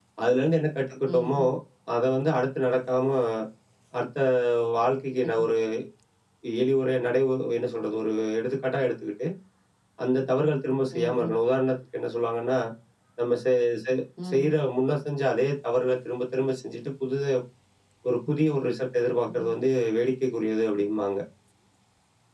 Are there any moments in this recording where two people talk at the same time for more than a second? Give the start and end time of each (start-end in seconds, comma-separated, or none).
none